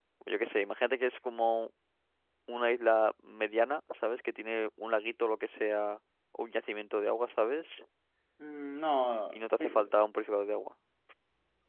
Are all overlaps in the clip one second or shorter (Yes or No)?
Yes